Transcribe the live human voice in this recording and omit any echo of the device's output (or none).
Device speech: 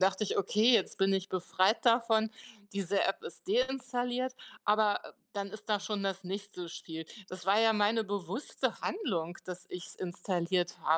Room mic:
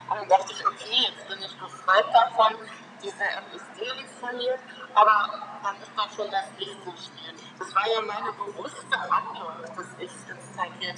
none